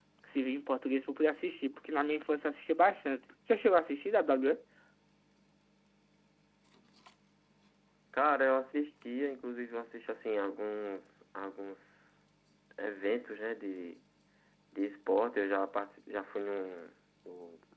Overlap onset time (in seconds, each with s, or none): none